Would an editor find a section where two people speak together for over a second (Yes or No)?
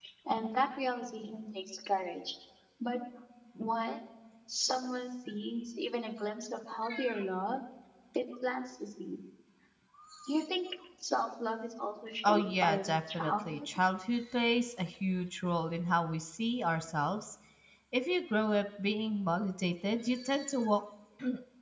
Yes